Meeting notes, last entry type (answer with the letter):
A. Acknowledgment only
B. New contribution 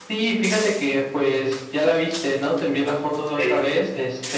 A